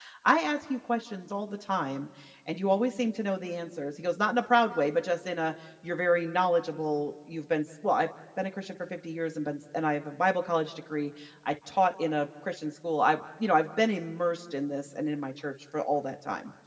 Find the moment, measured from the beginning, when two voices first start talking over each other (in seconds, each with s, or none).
none